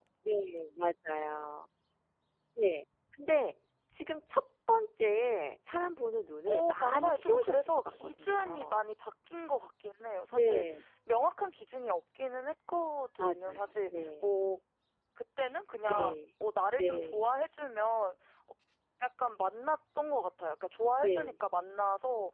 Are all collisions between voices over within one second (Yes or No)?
No